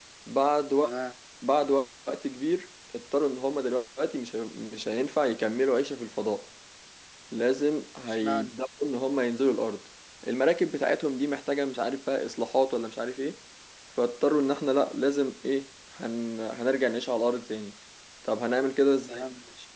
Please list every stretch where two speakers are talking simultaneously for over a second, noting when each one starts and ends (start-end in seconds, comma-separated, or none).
none